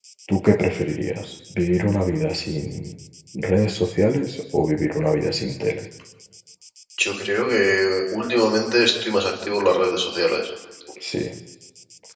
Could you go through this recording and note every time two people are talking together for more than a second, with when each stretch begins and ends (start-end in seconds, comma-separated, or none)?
none